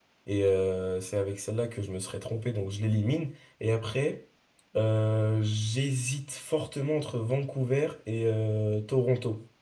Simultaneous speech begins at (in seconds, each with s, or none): none